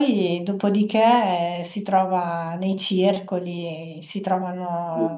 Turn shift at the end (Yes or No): No